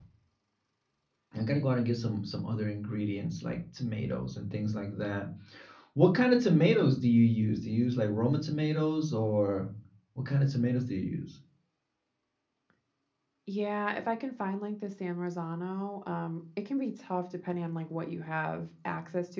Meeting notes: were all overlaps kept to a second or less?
Yes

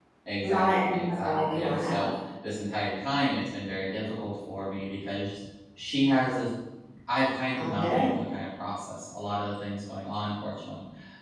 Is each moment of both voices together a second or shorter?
No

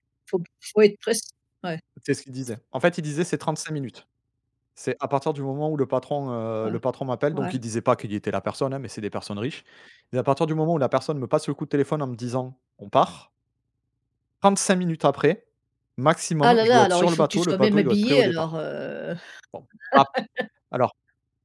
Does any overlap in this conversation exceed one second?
Yes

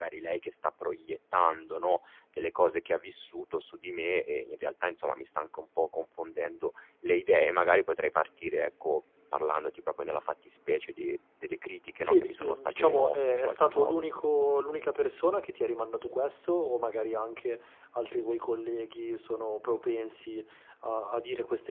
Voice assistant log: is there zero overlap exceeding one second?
No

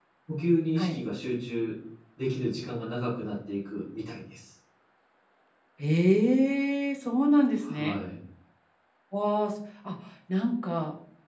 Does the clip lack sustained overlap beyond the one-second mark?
Yes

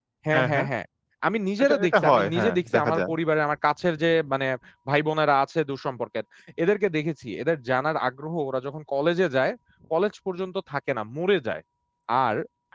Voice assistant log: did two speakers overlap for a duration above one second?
Yes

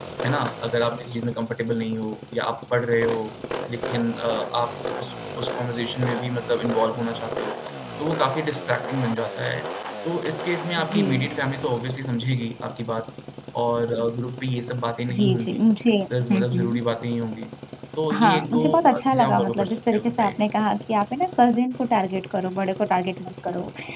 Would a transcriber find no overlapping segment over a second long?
No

